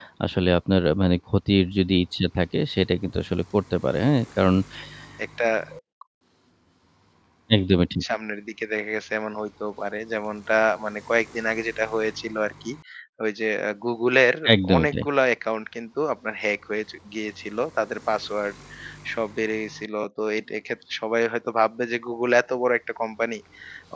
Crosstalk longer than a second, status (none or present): none